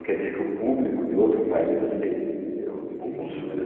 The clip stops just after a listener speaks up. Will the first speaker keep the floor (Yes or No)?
No